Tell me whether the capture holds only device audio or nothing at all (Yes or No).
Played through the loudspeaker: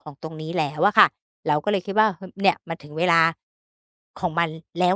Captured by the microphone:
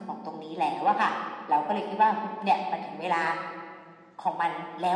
Yes